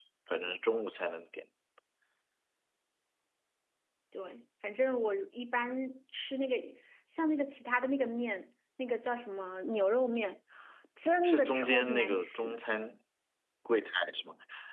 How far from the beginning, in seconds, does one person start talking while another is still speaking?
11.2 s

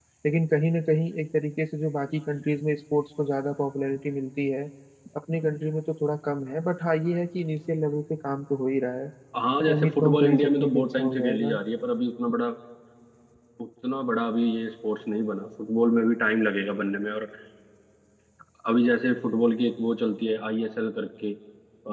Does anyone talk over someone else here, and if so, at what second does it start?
9.7 s

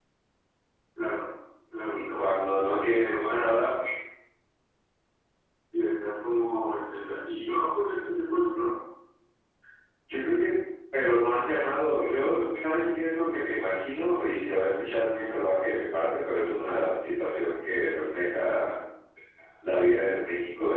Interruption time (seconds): 1.9 s

